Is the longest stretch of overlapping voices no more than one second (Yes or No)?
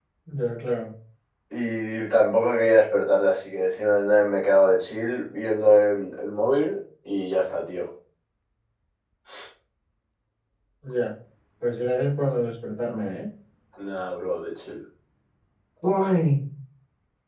Yes